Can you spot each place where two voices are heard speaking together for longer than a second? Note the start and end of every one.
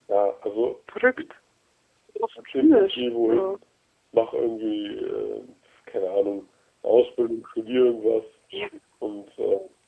2.4-3.6

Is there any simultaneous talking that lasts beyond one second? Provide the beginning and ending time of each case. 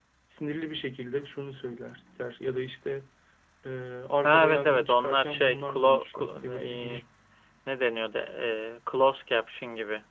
4.2-7.0

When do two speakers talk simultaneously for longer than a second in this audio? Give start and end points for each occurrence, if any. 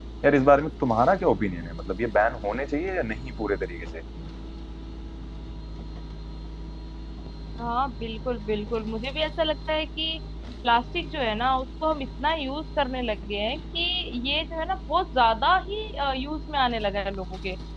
none

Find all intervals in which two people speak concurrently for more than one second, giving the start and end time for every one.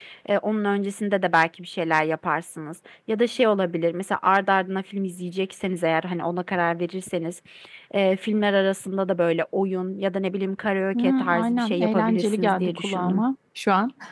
10.9-13.2

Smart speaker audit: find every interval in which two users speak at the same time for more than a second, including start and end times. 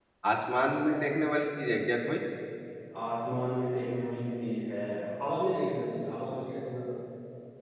none

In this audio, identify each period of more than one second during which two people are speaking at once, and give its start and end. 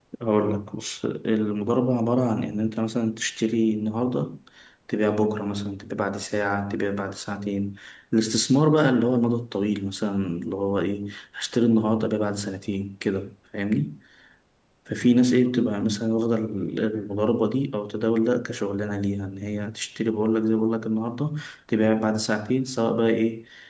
none

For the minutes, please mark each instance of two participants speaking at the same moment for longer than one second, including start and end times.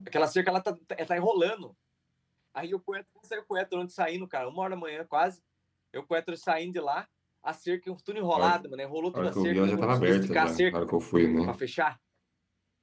9.1-10.8

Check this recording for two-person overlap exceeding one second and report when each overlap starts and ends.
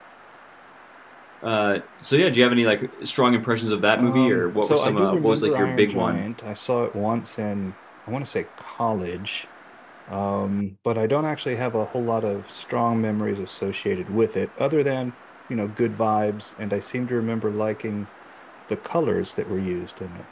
4.0-6.2

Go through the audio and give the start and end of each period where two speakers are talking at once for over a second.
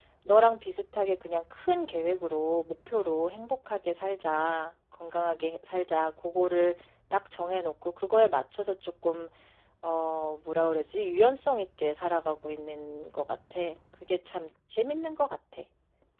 none

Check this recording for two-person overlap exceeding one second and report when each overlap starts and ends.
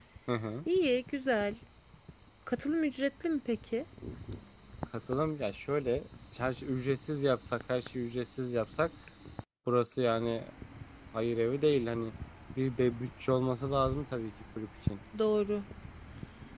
none

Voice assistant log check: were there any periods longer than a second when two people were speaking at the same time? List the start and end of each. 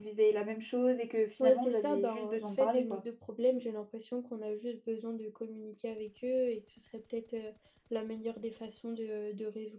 1.4-3.0

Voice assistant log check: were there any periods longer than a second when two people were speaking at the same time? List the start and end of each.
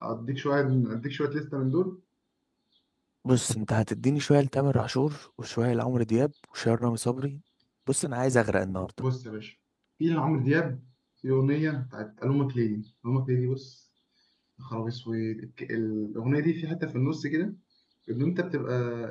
none

